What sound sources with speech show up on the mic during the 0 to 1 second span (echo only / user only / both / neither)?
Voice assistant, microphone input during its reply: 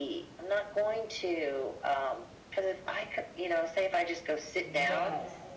echo only